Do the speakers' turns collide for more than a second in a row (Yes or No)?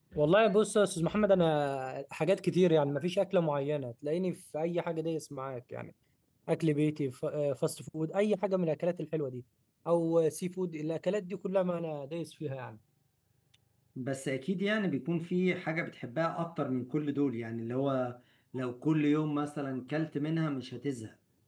No